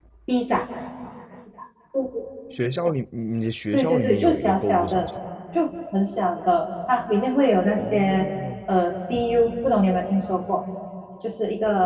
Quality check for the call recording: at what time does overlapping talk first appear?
4 s

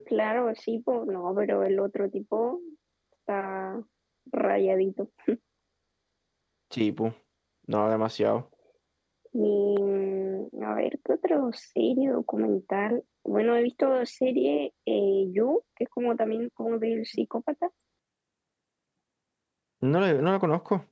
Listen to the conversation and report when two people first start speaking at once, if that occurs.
none

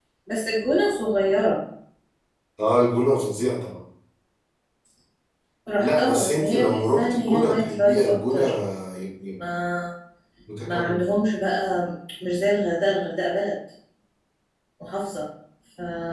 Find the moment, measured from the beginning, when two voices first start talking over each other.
6 s

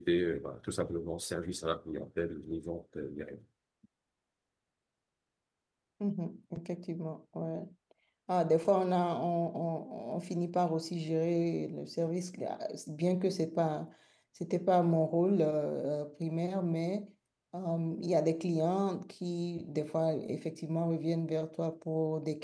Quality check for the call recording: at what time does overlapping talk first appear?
none

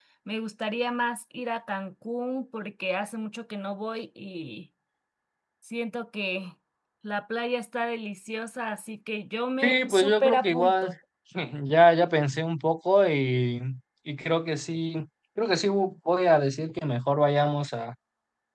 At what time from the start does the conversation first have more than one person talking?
10 s

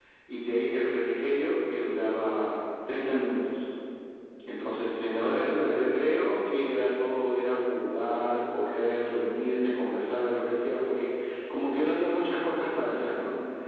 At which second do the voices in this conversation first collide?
none

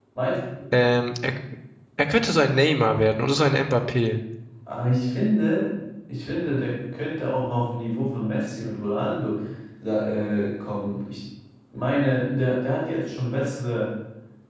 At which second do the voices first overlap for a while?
none

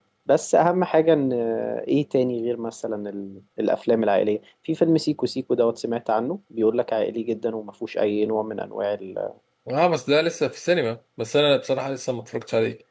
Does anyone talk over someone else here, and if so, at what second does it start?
none

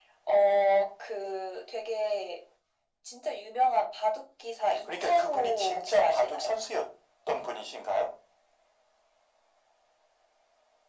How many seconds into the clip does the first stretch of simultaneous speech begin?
5 s

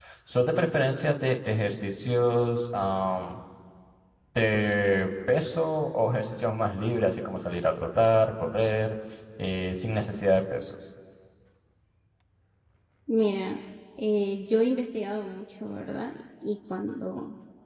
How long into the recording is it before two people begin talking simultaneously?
none

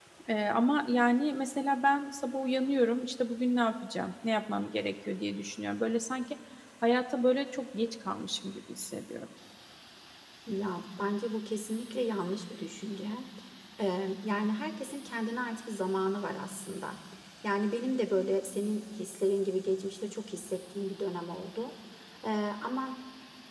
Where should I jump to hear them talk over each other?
none

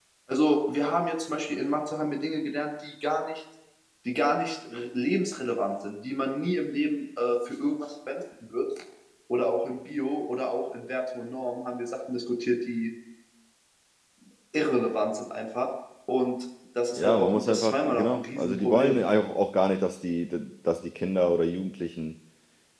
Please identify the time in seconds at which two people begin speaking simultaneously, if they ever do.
17 s

